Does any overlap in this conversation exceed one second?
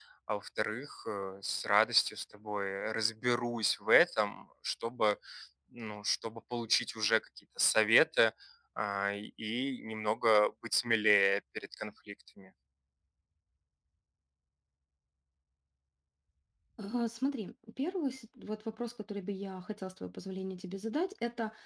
No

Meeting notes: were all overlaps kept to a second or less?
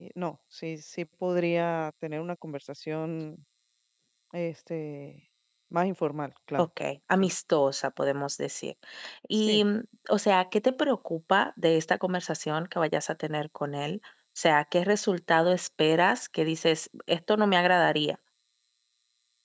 Yes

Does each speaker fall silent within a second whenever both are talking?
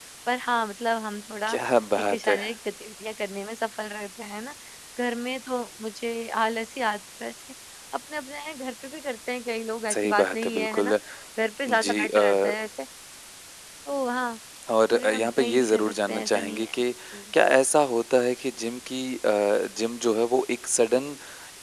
No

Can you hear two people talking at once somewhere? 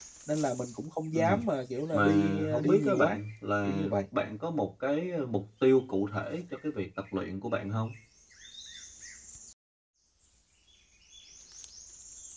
Yes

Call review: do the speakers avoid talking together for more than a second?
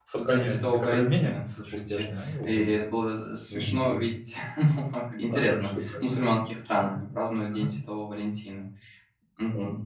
No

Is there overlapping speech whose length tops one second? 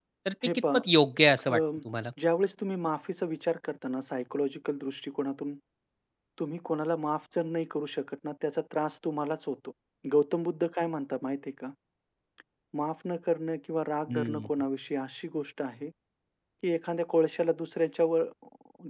No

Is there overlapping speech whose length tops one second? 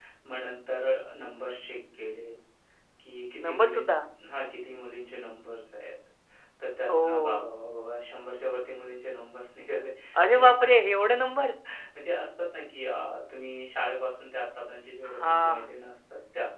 No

